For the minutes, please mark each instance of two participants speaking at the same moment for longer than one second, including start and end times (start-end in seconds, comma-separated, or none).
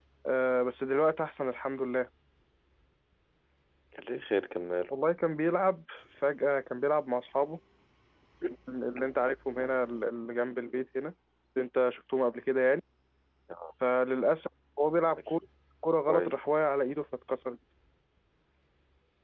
none